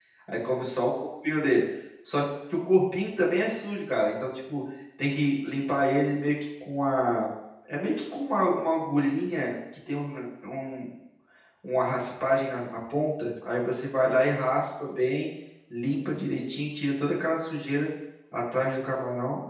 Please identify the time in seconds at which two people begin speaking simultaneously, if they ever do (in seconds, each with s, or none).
none